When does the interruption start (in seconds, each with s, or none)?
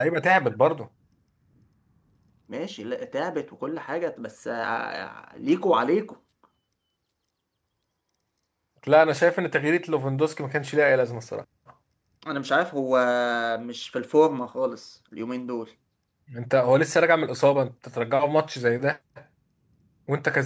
none